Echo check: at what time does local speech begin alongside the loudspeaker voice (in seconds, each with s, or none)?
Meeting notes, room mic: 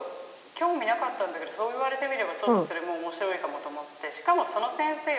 2.5 s